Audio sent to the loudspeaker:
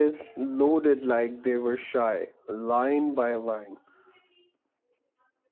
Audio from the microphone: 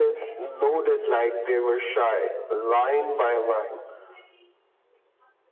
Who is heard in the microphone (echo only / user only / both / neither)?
echo only